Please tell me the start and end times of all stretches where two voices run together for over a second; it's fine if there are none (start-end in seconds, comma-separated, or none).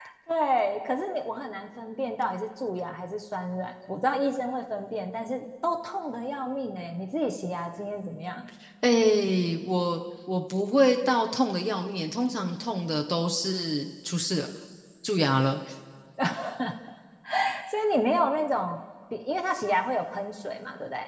none